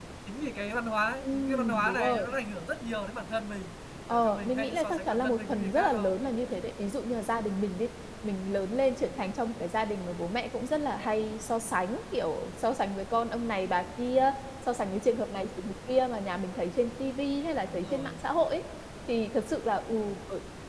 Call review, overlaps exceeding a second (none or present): present